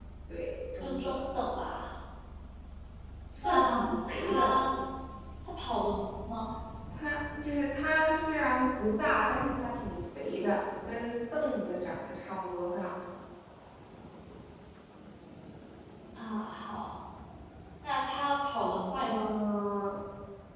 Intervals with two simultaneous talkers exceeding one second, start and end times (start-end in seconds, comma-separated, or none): 3.4-4.6